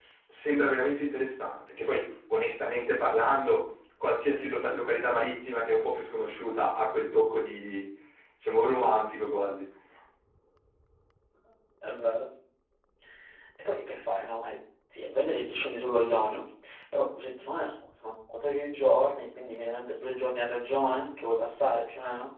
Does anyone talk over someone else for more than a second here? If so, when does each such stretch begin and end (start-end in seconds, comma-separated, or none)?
none